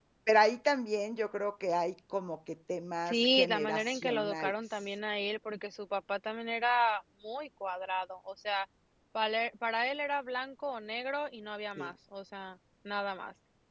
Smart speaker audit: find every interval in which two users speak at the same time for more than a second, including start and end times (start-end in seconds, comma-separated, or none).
3.1-4.8